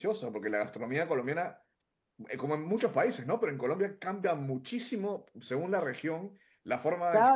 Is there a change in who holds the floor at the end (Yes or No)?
Yes